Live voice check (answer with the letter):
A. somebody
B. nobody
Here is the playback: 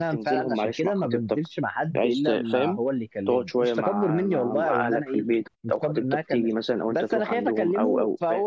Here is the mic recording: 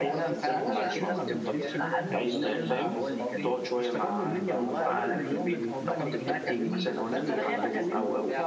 A